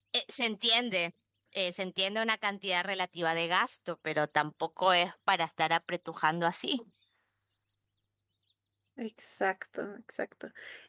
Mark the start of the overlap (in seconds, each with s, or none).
none